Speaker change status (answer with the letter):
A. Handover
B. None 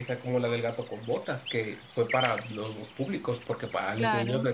B